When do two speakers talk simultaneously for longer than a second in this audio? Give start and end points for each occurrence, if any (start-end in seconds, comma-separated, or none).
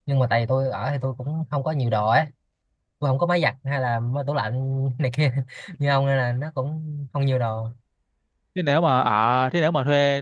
none